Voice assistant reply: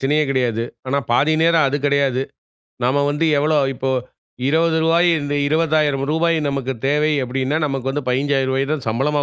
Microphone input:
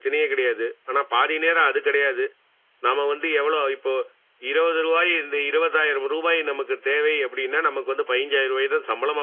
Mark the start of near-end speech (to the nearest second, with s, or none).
none